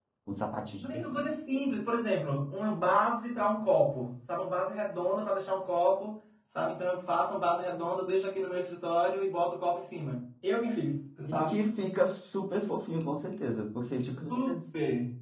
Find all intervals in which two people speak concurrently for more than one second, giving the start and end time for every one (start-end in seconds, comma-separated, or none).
none